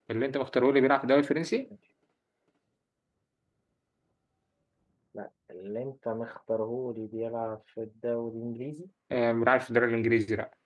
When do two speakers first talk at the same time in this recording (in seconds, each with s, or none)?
none